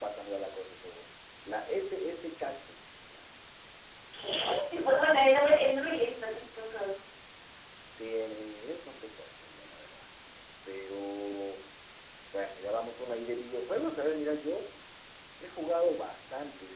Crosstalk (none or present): none